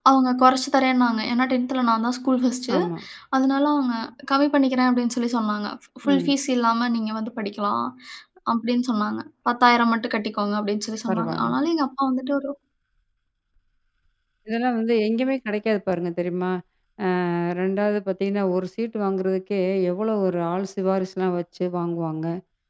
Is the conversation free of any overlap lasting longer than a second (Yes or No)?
Yes